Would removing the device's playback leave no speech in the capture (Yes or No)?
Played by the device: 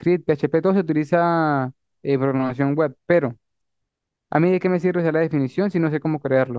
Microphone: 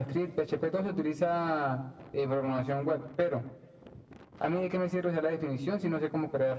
Yes